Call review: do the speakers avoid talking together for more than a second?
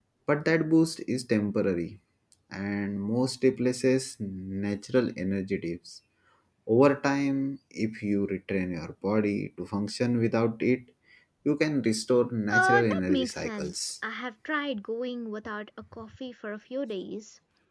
No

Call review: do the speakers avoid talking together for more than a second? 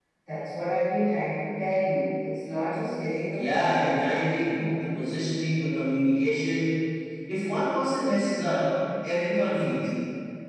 No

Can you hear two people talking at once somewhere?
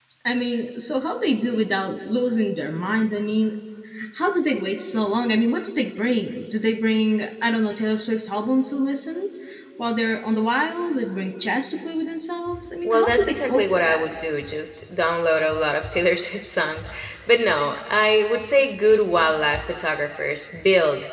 Yes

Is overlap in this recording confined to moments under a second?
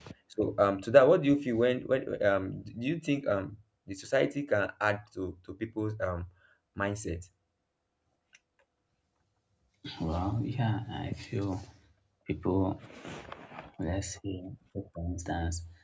Yes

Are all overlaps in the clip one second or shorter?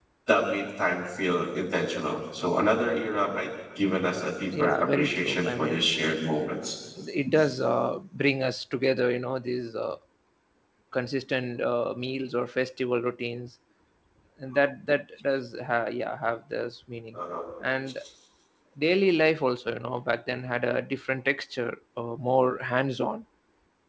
No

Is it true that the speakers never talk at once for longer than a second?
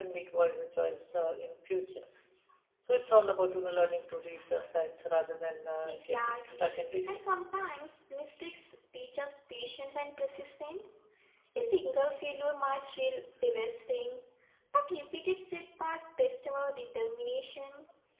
No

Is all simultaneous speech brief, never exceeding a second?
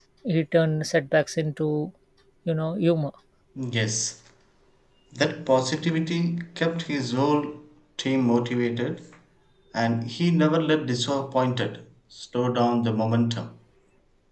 Yes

